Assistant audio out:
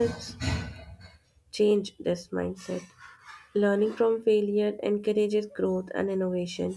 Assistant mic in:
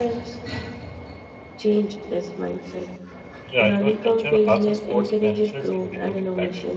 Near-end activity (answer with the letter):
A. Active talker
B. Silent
A